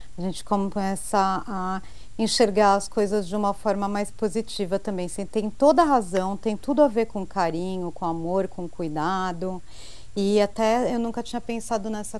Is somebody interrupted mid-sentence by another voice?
No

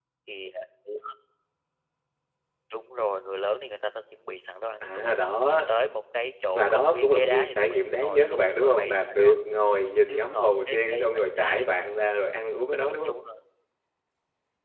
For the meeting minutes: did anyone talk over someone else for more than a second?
Yes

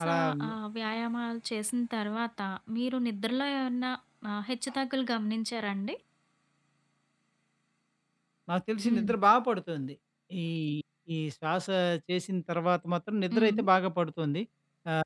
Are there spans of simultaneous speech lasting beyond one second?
No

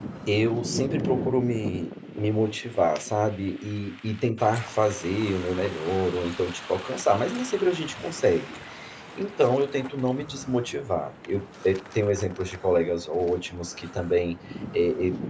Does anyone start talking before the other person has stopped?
No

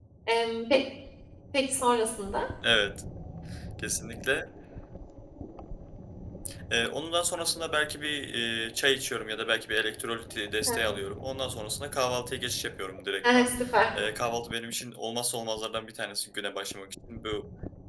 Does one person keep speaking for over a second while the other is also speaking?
No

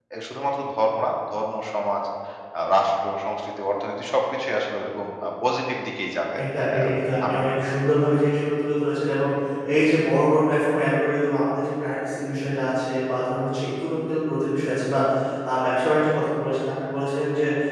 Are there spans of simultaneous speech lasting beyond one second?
No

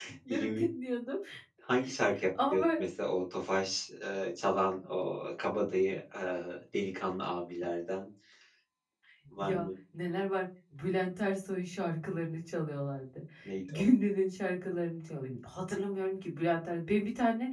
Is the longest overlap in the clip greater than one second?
No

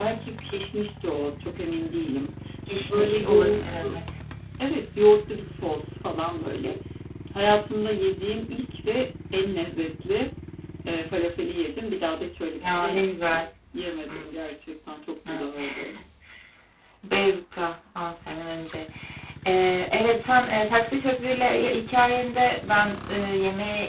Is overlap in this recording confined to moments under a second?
No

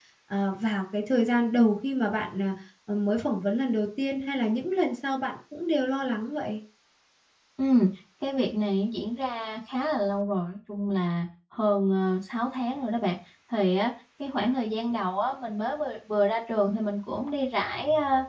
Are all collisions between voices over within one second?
Yes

